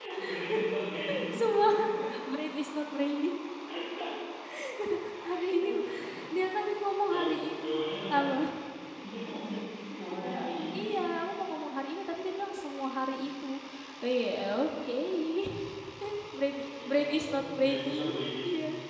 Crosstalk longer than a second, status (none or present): present